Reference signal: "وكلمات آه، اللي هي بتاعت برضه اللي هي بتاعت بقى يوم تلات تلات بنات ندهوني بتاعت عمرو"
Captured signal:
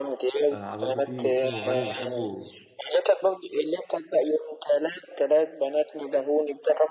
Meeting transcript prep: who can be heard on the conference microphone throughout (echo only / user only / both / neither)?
both